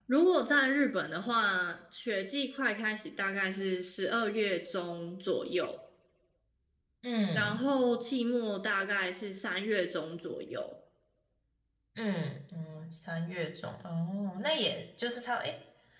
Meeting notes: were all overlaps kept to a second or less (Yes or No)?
Yes